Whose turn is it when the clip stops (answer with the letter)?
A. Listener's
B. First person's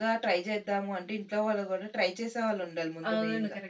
A